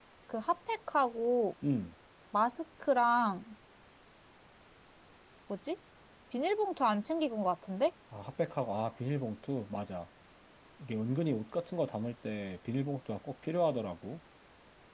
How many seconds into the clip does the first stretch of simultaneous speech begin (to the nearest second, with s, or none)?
none